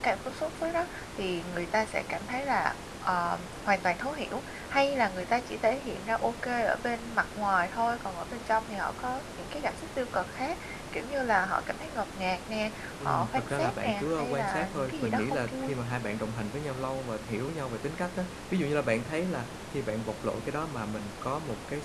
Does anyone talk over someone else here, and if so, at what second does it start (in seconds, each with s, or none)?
13.0 s